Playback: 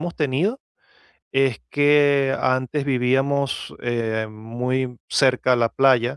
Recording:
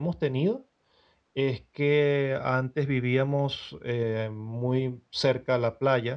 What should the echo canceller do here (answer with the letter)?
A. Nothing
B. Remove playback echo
B